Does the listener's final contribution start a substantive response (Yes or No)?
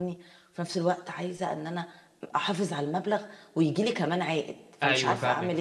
Yes